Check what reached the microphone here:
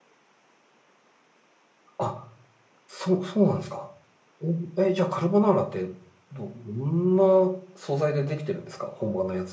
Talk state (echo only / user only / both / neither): user only